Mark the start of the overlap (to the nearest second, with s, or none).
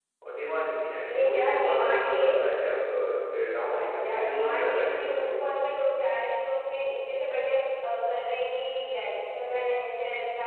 1 s